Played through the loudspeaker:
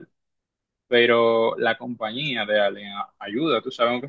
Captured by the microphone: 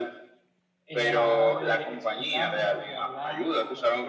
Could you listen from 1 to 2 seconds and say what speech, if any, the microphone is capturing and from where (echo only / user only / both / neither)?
both